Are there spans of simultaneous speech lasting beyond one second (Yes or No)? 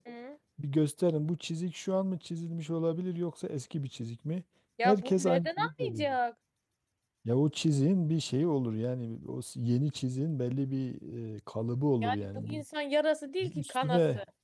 Yes